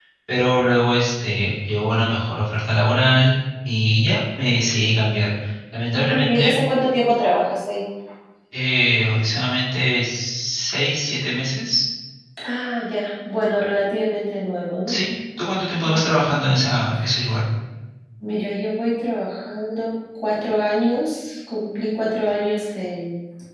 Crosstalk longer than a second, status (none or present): none